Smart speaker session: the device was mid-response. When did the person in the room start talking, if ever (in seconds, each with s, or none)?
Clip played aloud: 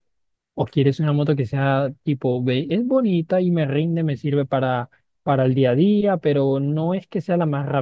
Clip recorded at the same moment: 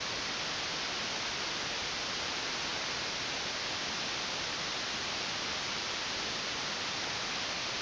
none